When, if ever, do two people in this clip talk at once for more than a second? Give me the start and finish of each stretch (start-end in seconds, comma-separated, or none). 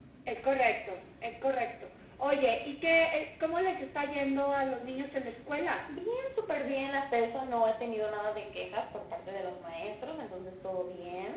none